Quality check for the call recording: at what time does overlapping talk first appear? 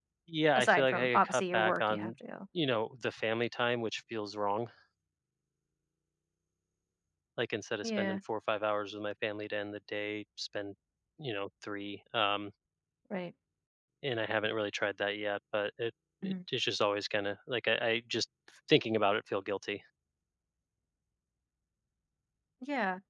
0.6 s

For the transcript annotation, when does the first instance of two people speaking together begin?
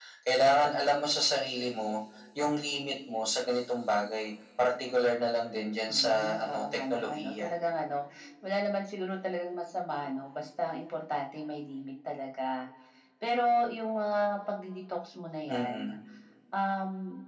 5.9 s

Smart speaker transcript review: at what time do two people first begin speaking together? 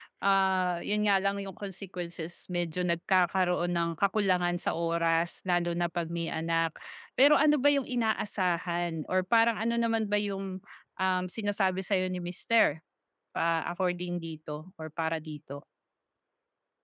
none

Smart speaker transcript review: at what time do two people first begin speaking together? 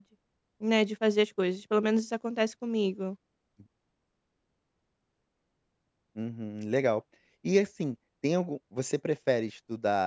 none

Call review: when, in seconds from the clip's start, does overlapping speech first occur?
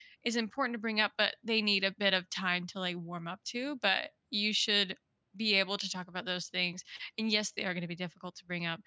none

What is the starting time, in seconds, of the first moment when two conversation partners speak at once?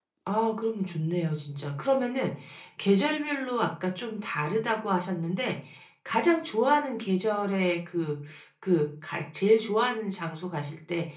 none

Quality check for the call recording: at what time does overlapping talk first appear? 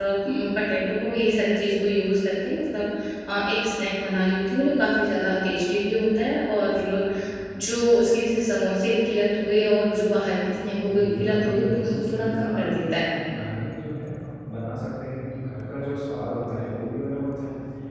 10.9 s

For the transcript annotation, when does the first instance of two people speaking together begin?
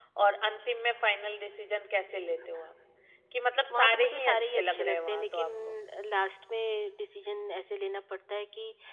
3.7 s

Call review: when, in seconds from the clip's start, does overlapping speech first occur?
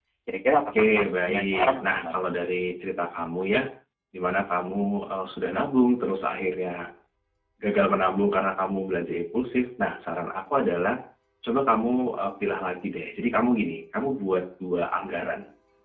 0.8 s

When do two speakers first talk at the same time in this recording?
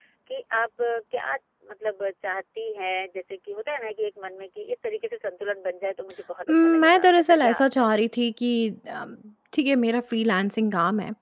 6.5 s

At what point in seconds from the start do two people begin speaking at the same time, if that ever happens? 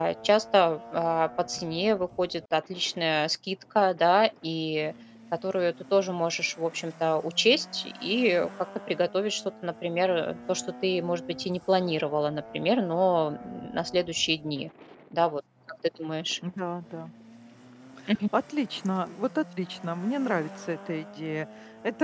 none

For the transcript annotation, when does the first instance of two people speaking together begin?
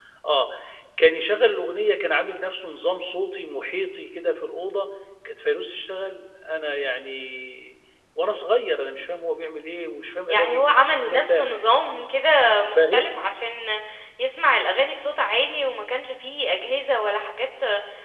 10.3 s

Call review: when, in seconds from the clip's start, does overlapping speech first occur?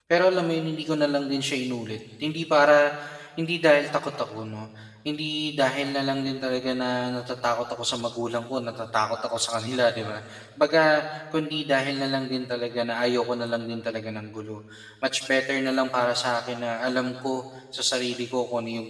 none

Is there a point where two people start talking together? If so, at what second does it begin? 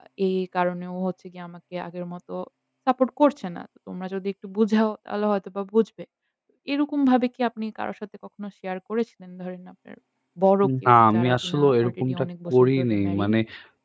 10.7 s

